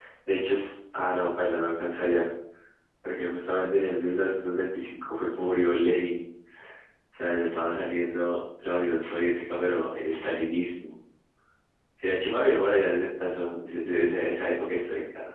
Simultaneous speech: No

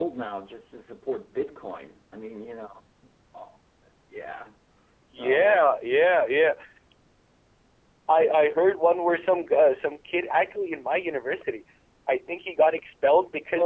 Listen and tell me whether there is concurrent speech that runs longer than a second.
No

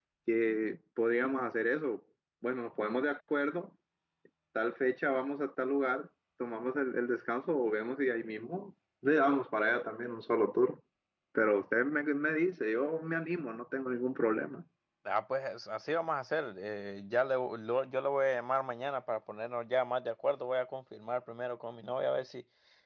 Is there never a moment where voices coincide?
Yes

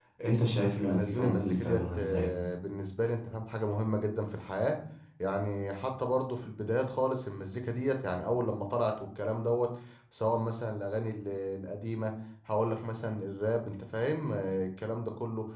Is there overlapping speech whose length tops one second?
Yes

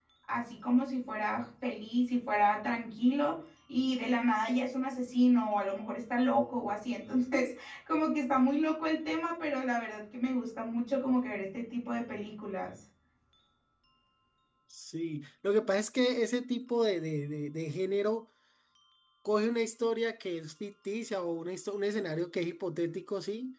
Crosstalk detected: No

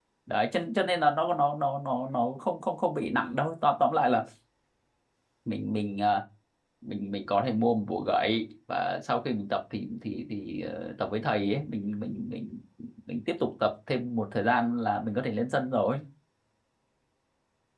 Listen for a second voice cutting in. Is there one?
No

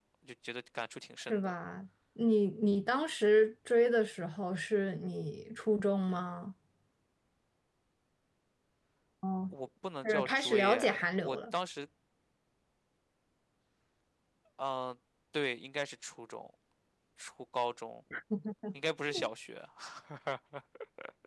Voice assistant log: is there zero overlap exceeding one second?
No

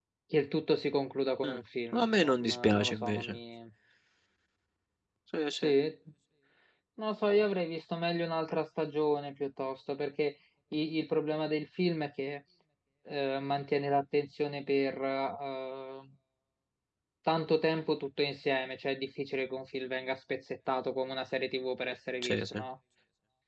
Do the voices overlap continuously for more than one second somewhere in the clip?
Yes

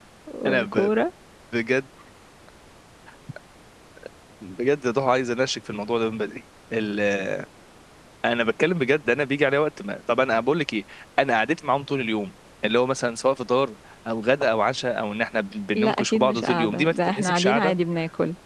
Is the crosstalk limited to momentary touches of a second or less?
No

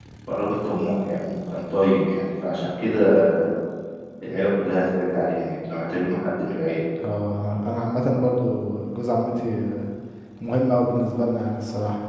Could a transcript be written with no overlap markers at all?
Yes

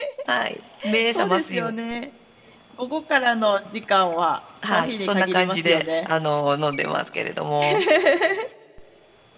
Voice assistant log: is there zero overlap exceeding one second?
No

